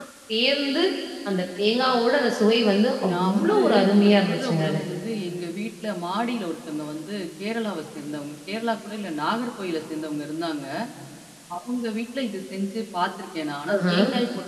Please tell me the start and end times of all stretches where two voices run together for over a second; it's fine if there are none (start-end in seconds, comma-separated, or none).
3.1-4.8